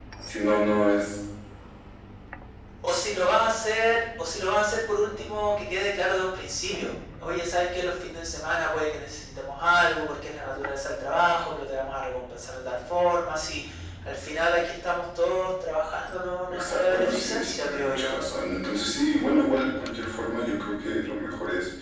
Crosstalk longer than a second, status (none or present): present